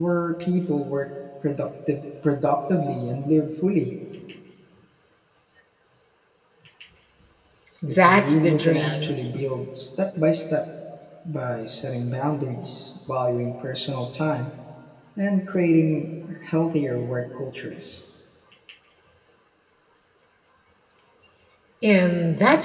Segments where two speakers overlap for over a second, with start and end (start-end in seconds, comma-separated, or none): 7.9-9.2